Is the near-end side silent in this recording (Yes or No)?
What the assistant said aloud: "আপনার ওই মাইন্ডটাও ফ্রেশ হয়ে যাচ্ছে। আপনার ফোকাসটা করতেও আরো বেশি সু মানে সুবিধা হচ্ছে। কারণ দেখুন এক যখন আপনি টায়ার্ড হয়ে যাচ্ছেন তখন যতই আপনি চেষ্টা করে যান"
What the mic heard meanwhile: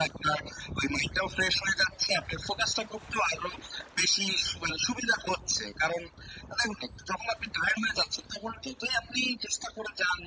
Yes